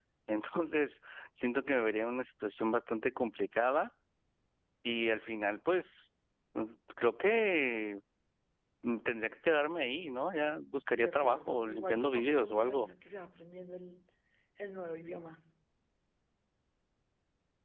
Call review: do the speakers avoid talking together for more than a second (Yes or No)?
No